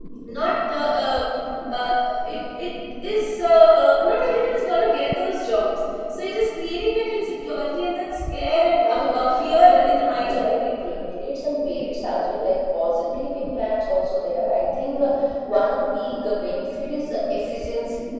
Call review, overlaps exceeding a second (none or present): present